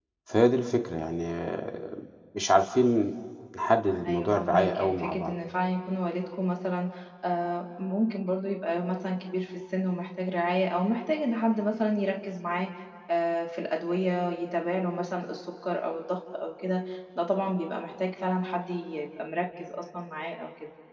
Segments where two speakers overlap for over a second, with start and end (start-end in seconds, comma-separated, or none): 4.1-5.3